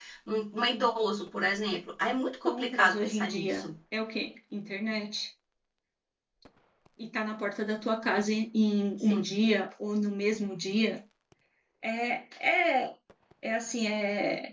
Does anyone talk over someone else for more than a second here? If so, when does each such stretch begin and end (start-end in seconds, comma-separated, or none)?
2.4-3.6